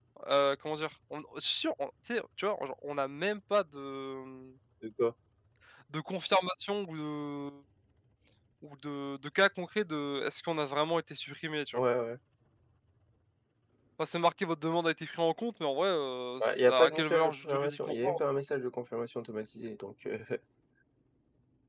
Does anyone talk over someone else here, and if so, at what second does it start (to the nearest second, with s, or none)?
16 s